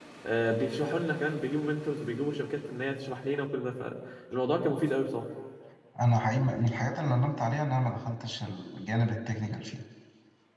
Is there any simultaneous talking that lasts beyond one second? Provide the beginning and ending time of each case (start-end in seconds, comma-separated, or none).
none